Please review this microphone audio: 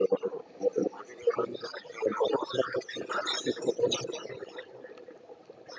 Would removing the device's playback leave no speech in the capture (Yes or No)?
Yes